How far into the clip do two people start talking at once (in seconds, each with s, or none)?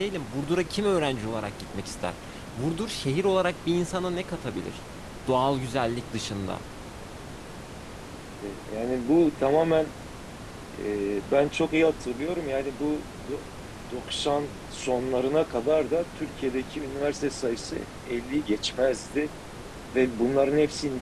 none